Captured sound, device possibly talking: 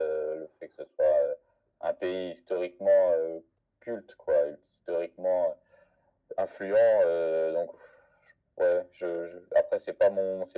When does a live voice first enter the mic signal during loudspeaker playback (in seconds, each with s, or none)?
none